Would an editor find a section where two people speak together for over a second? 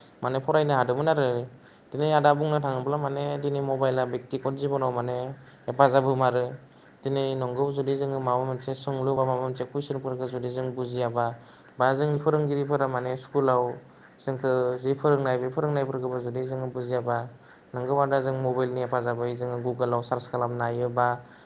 No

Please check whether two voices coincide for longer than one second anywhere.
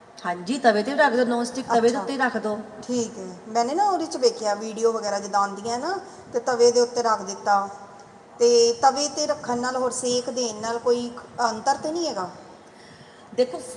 No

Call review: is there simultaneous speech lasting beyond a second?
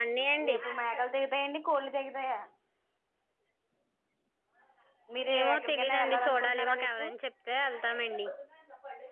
Yes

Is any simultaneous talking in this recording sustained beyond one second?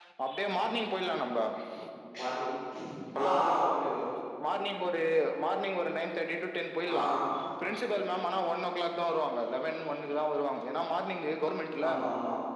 No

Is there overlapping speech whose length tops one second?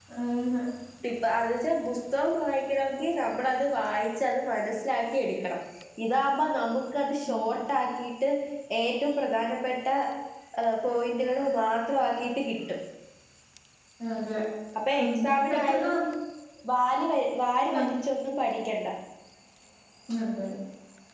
No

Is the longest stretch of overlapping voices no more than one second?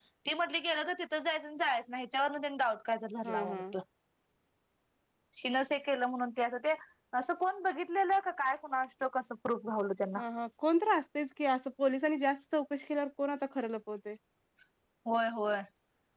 Yes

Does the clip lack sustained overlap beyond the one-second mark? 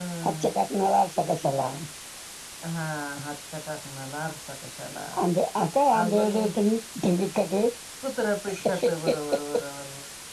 Yes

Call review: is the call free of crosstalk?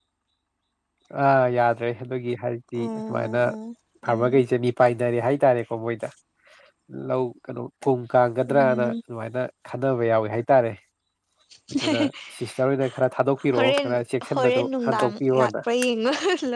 No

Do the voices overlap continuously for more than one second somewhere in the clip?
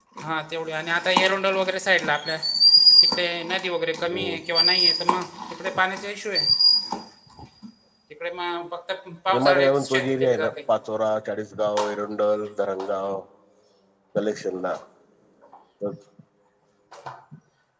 Yes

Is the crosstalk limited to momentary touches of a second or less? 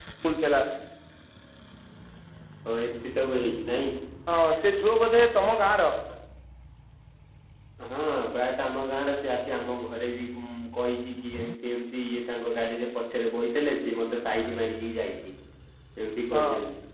Yes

